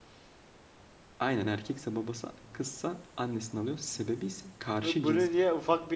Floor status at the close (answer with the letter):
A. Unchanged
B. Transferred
B